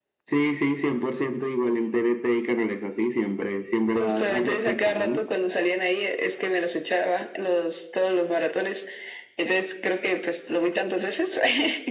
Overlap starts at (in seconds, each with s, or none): 3.9 s